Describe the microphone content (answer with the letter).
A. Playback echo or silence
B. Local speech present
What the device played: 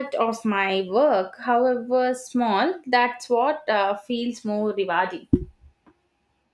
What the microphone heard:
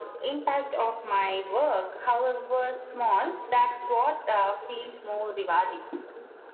A